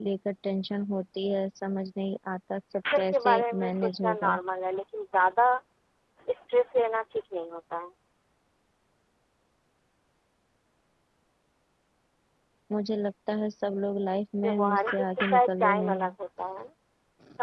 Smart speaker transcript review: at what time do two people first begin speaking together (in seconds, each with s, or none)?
3.0 s